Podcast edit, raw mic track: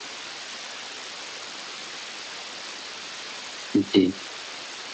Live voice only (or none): জ্বী।